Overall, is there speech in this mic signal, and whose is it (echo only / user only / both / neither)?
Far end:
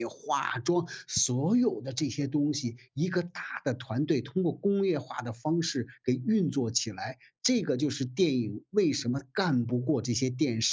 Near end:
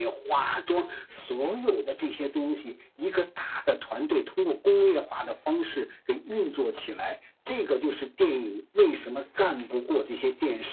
echo only